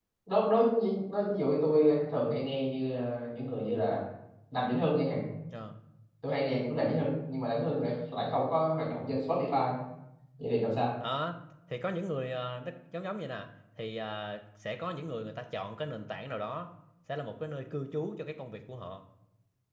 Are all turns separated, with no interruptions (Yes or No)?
Yes